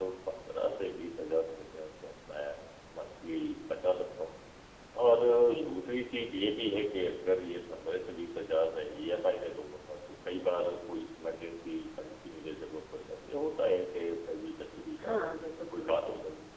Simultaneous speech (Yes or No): Yes